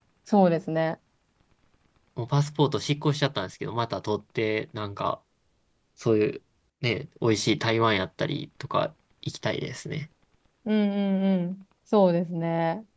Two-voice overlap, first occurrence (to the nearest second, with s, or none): none